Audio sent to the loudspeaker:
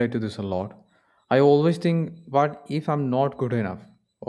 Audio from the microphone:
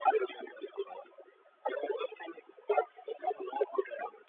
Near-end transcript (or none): none